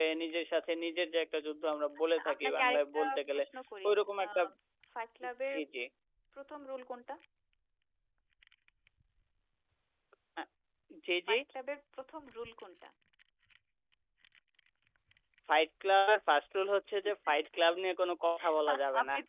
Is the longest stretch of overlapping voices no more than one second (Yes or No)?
No